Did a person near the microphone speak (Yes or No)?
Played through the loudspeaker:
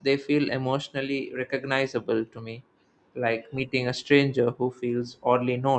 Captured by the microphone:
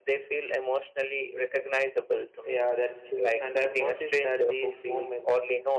Yes